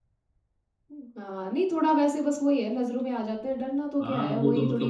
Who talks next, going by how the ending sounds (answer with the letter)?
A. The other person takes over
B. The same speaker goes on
A